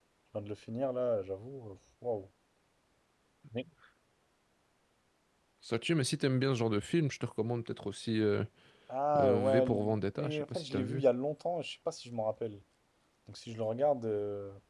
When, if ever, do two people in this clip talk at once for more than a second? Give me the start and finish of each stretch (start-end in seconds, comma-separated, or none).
9.2-11.0